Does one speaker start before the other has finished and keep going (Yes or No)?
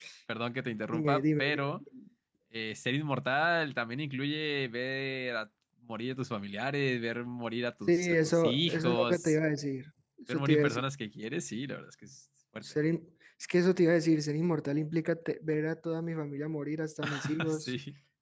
Yes